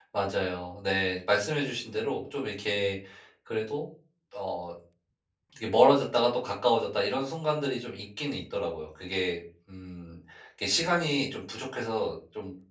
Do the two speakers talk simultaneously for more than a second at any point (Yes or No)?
No